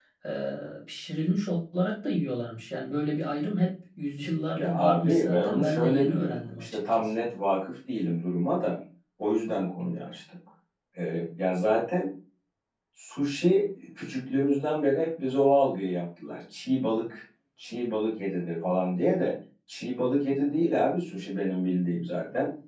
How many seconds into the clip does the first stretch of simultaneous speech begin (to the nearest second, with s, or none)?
5 s